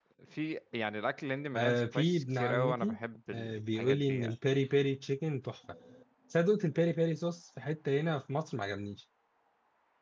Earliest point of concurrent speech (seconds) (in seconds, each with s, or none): 1.5 s